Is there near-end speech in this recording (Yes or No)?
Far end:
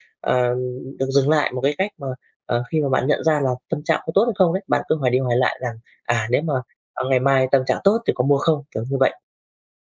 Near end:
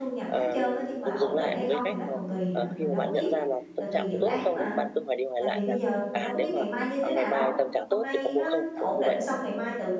Yes